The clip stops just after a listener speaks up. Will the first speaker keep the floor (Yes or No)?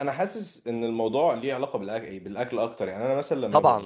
No